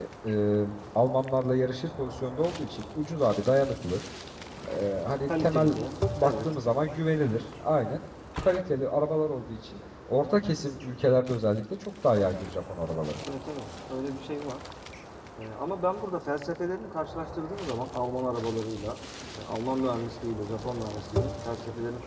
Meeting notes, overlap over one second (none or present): none